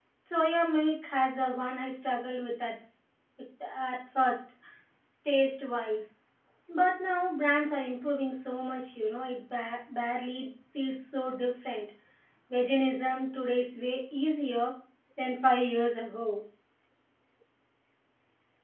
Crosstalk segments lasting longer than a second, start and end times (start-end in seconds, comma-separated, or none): none